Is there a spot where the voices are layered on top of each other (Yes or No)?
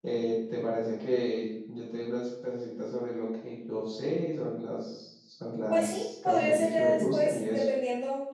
Yes